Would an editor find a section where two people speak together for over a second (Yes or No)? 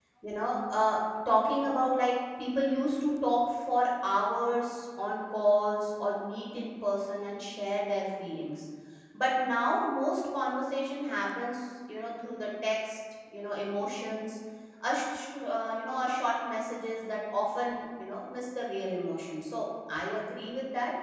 No